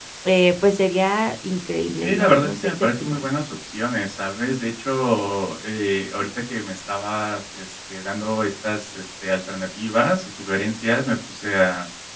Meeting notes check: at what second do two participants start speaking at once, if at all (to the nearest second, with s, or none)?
2 s